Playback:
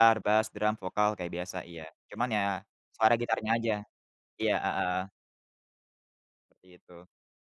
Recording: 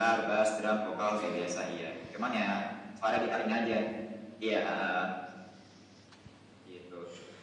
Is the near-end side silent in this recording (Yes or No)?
Yes